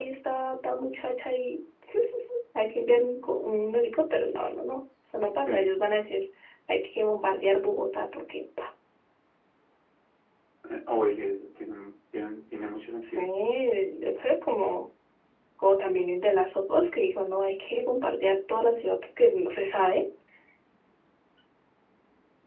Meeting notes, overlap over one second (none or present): none